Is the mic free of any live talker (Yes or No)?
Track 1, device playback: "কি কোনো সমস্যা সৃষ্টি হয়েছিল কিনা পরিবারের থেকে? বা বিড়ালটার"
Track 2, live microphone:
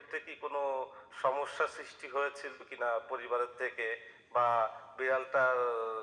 Yes